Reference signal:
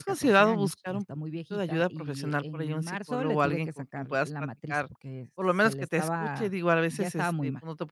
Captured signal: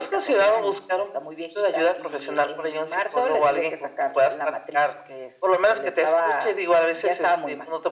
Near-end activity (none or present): none